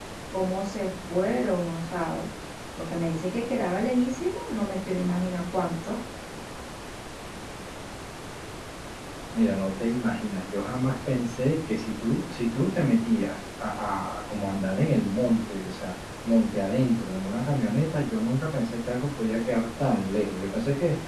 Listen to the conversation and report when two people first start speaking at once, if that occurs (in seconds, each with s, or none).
none